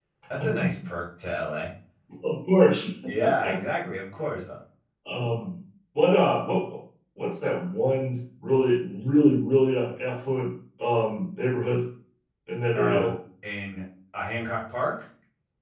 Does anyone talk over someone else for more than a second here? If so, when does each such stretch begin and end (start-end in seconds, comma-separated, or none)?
none